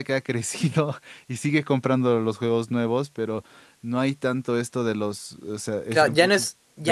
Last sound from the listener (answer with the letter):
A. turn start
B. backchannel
A